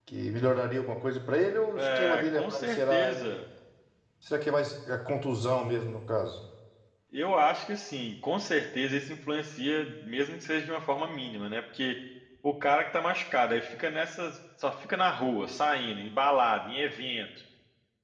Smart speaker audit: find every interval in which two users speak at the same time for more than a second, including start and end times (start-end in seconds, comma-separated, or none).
1.8-3.4